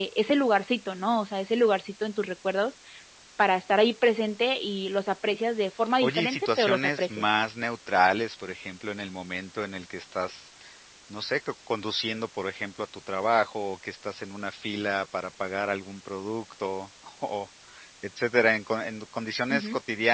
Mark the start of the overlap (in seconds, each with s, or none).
6.0 s